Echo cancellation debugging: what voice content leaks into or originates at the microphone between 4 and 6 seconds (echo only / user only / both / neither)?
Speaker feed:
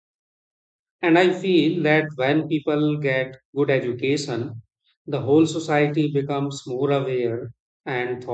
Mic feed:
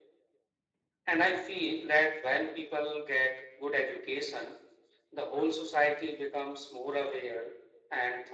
echo only